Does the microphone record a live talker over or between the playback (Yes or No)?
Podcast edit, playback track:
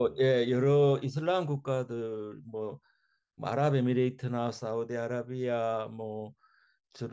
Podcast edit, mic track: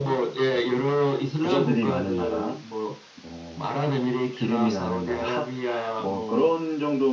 Yes